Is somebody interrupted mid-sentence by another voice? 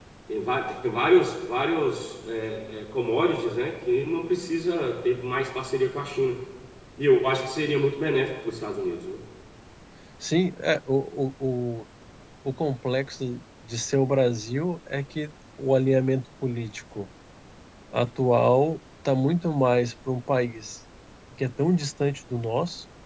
No

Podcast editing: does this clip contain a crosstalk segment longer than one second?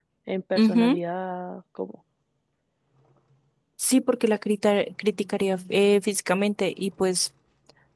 No

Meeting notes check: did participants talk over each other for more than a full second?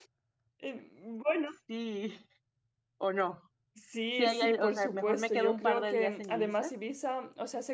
Yes, from 4.2 s

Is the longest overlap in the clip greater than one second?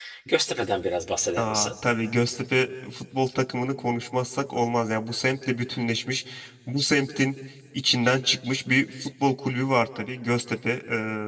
No

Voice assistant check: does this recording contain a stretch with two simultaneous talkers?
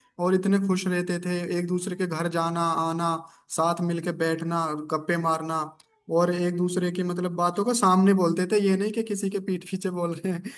No

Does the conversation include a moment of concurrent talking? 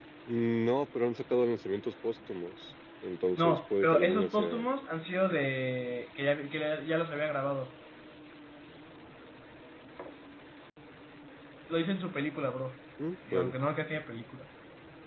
Yes, from 3.4 s

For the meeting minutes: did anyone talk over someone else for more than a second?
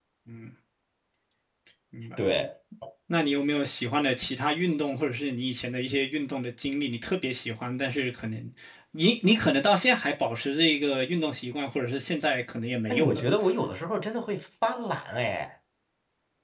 No

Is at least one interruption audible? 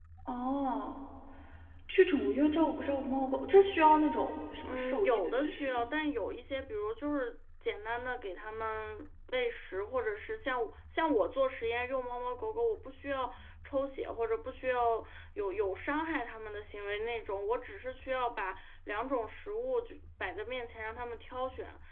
Yes, from 4.6 s

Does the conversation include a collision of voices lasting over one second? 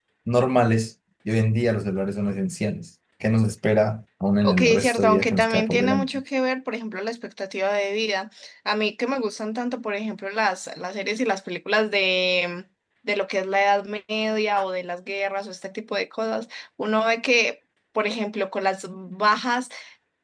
Yes, from 4.4 s

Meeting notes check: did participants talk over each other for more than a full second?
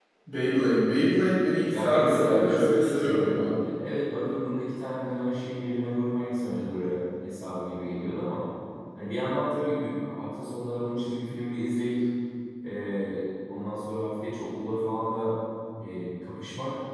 Yes, from 1.7 s

